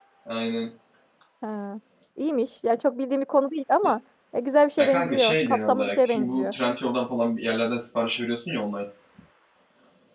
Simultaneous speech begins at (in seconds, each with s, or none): 4.8 s